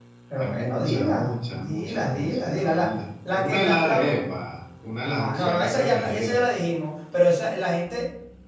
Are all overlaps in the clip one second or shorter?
No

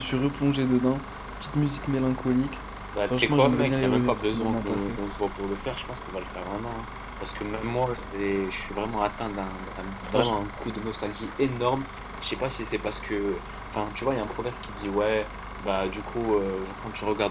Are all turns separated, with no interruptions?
No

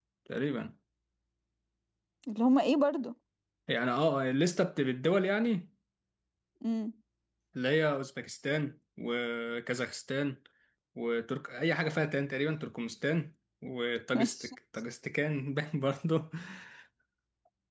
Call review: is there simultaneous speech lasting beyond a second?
No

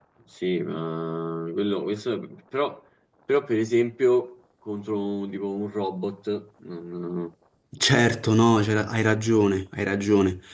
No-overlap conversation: Yes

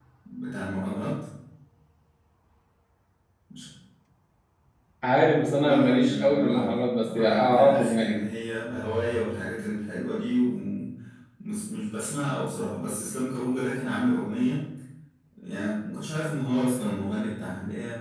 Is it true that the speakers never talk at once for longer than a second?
No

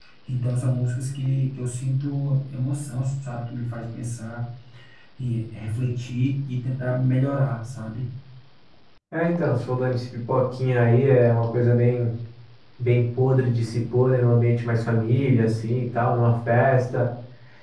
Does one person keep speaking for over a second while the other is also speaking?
No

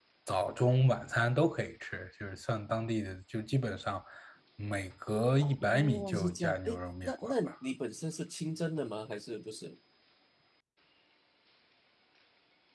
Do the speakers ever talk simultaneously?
Yes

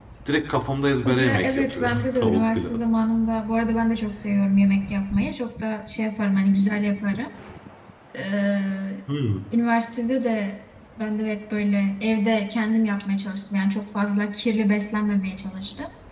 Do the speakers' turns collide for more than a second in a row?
Yes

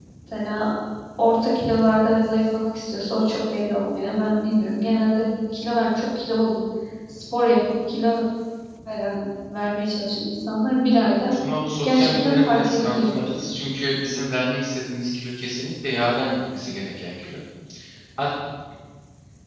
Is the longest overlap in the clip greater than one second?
Yes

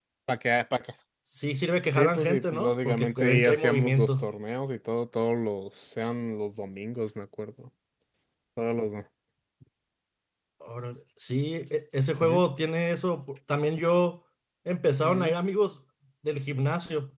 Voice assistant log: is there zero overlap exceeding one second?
No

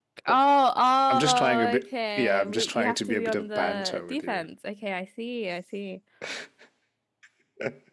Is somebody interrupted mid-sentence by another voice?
Yes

